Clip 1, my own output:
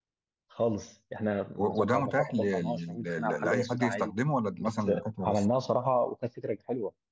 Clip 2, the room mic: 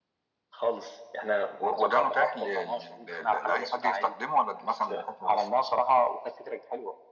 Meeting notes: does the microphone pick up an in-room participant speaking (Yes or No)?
No